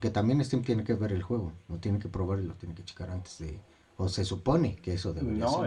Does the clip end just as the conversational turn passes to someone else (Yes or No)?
Yes